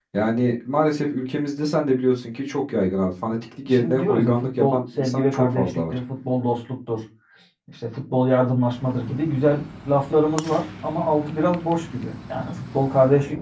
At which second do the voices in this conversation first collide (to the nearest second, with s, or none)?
4 s